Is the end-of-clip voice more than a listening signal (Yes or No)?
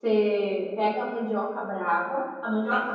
No